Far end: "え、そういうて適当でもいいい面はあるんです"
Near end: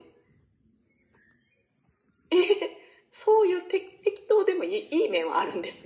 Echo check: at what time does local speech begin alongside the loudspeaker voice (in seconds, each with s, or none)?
none